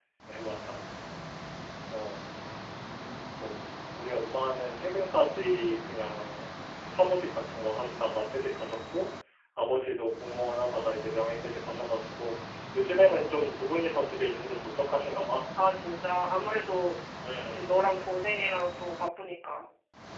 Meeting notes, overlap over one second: none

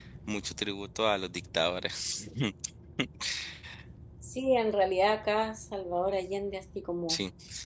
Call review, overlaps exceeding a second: none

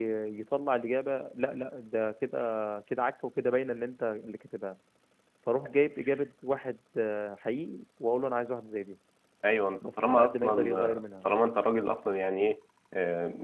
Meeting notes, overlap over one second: present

